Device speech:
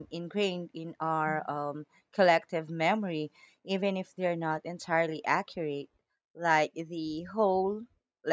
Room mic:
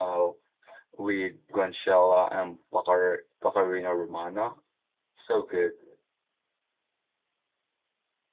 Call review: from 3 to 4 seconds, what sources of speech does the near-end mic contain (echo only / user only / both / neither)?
user only